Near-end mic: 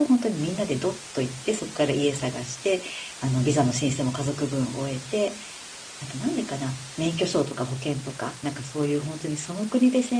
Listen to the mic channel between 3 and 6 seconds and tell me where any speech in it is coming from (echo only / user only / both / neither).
user only